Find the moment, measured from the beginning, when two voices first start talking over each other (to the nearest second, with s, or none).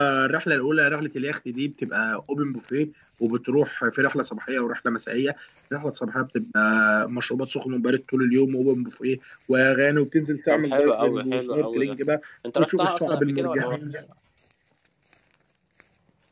10 s